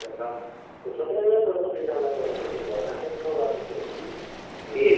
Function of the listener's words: taking over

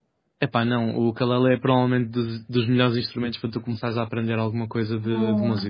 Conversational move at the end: taking over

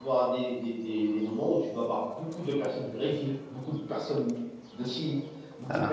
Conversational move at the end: listening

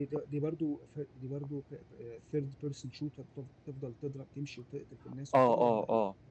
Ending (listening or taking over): taking over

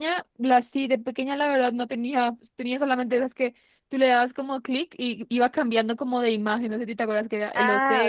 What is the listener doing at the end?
taking over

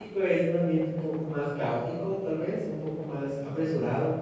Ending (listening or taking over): listening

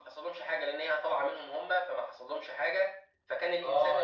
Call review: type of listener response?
taking over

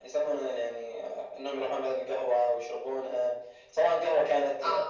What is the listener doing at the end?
listening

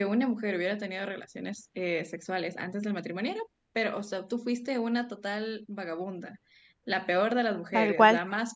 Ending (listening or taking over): listening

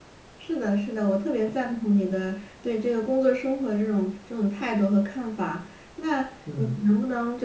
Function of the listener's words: listening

